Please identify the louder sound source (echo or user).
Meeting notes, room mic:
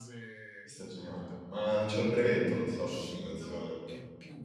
user